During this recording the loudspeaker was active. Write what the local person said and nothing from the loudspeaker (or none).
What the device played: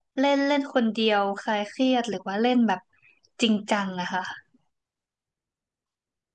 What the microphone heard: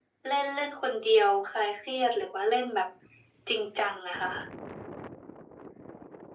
none